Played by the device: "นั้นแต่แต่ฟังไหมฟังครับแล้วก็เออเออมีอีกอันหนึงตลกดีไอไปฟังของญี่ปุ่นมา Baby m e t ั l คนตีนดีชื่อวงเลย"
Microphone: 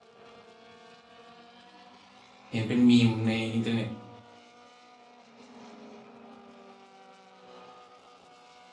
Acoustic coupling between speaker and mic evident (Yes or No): No